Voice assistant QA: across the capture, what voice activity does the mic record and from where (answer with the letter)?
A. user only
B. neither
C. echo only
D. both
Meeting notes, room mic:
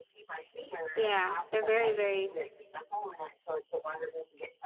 D